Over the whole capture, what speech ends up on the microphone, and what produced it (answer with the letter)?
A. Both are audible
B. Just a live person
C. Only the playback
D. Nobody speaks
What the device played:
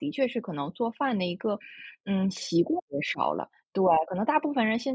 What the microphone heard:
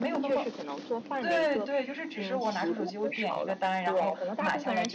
A